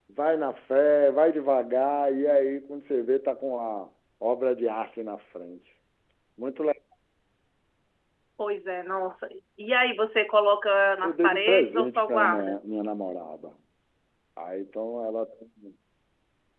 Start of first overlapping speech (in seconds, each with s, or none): 11.0 s